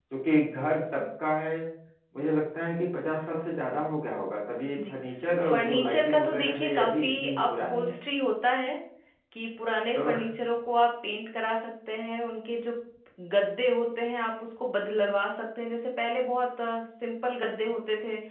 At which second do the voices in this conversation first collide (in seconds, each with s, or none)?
5.5 s